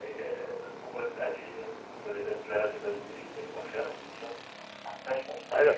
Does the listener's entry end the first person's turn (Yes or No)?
No